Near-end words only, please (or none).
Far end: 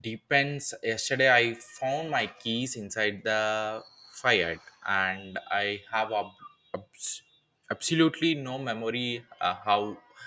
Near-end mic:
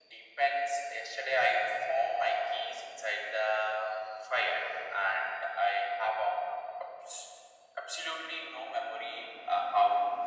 none